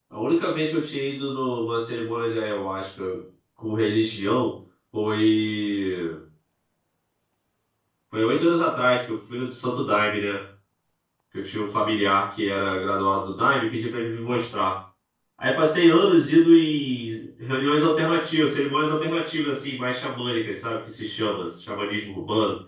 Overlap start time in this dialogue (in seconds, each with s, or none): none